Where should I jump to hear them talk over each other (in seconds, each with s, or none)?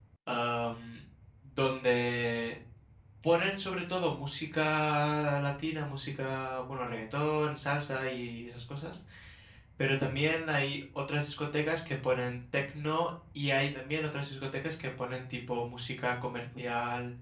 none